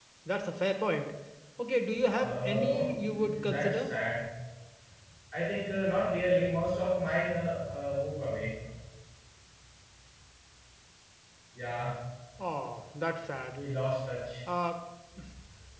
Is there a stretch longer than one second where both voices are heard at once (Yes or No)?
Yes